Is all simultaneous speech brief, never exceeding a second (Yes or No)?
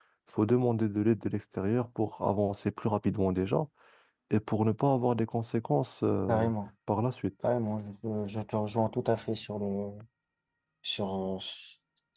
Yes